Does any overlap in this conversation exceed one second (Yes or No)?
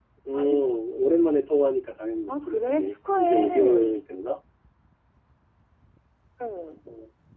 Yes